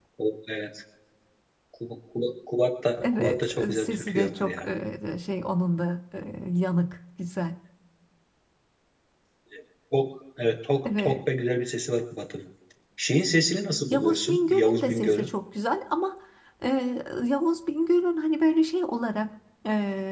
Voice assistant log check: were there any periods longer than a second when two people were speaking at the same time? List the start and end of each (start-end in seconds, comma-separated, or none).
3.0-4.6, 13.9-15.3